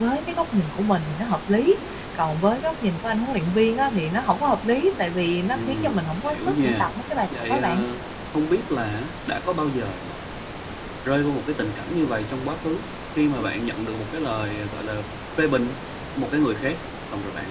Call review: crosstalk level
present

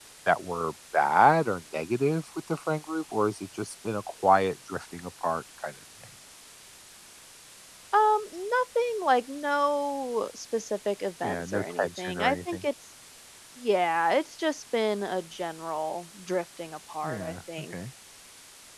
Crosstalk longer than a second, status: present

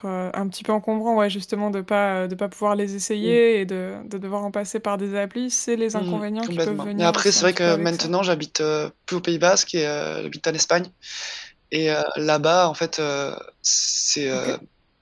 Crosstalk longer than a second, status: present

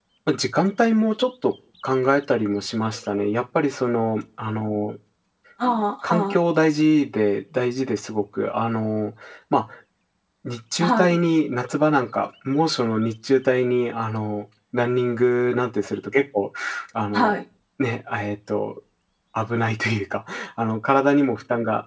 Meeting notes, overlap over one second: none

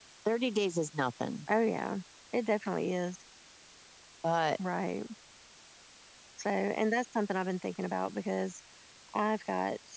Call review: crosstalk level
none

